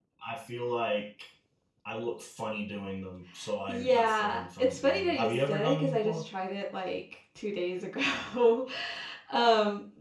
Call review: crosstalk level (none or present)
present